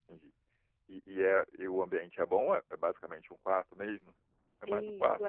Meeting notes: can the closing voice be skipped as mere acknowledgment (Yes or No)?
No